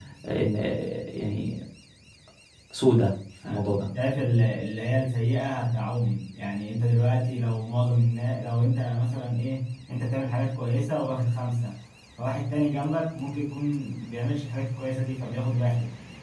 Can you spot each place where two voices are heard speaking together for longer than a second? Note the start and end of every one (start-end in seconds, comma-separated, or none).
none